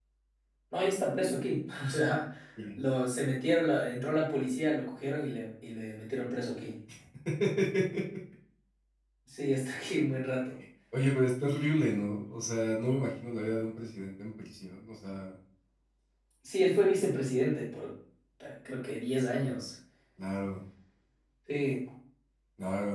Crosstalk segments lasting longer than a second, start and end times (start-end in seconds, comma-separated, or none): none